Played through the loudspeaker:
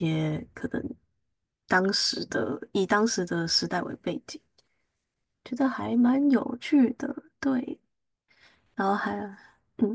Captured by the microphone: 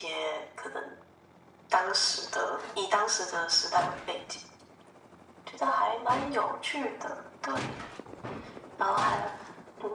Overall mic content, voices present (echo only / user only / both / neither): echo only